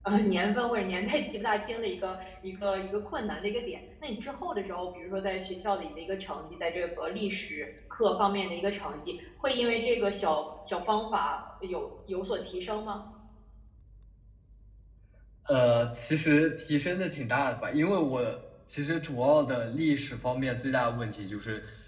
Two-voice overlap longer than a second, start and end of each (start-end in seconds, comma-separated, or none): none